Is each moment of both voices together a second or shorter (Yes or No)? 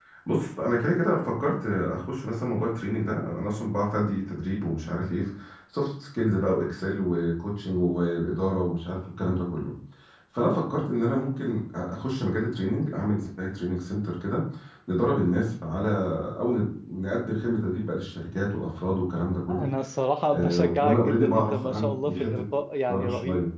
No